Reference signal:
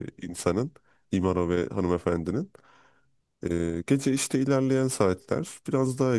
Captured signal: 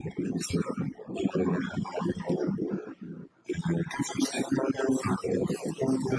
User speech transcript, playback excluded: none

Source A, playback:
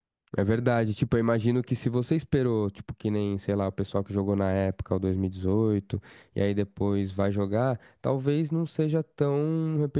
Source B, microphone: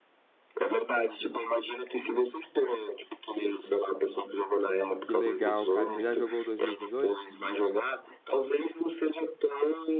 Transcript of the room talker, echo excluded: Que legal, cara. Você já jogou o 2018?

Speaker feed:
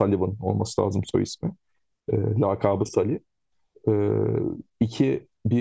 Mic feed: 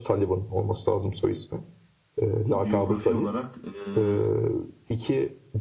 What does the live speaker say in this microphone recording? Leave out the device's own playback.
biyografi olarak eee,

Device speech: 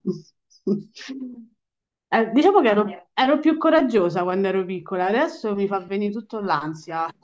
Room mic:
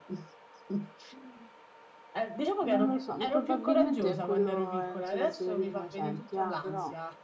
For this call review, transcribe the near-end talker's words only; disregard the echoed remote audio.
Non lo so, probabilmente quello è il Silenzio degli Innocenti, ah, però.

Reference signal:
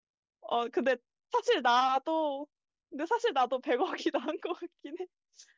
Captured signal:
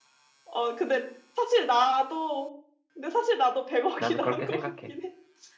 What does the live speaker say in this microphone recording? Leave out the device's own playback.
나는 그렇게 생각해.

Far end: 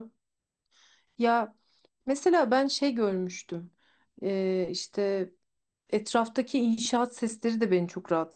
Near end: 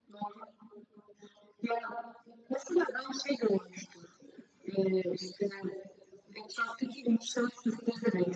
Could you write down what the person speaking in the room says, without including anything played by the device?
none

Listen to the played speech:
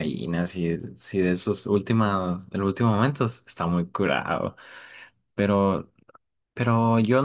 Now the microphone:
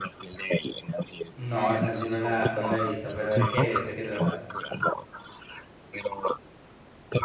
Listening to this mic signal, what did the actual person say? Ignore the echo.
No, Santi, no la, no la he visto, pero ¿de qué es? ¿De qué trata?

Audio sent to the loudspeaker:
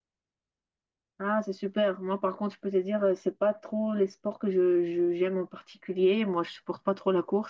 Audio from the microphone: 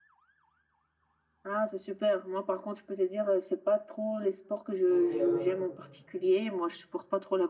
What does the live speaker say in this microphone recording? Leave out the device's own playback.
Ok, d'accord.

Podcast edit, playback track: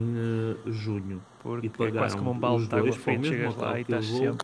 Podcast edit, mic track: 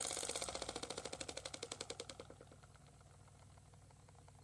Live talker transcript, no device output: none

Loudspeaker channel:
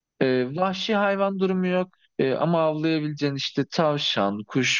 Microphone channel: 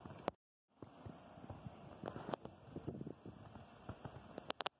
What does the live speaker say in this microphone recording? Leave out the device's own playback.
none

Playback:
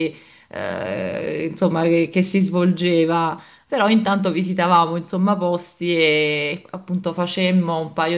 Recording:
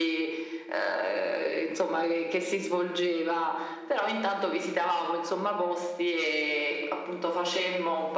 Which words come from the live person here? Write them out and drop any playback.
none

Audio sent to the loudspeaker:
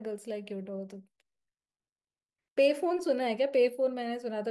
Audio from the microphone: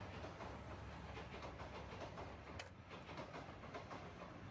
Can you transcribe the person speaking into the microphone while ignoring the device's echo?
none

